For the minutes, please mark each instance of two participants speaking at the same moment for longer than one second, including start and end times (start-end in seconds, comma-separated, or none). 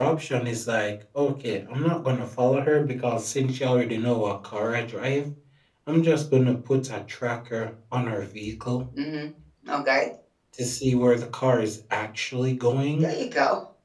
none